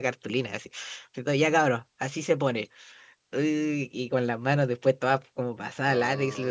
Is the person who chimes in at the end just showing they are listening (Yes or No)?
Yes